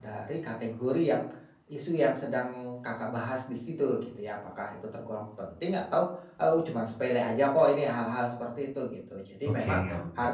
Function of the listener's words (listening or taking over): listening